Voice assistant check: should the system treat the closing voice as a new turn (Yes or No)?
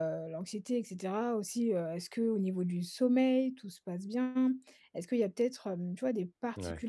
No